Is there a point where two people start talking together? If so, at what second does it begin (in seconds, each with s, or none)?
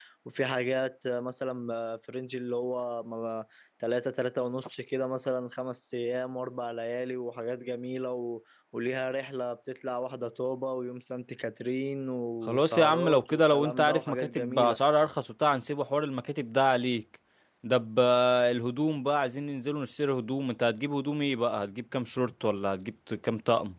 12.4 s